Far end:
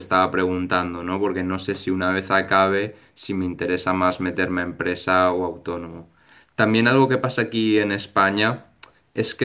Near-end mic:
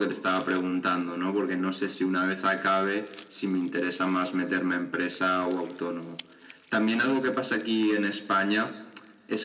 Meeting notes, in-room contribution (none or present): none